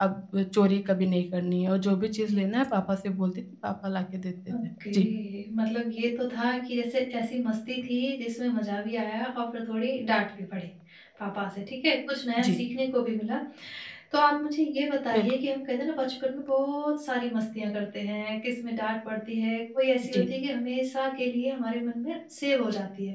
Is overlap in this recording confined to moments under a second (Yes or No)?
Yes